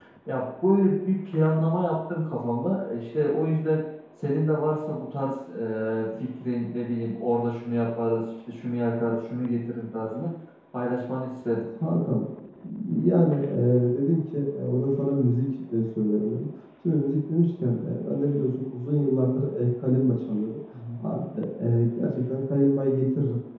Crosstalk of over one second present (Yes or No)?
No